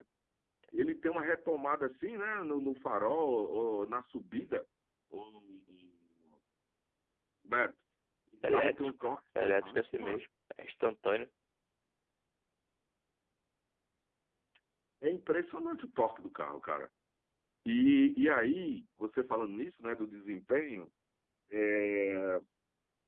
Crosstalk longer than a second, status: present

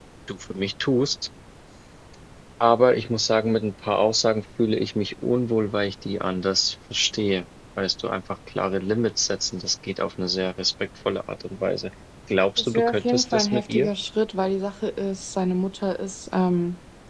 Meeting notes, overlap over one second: present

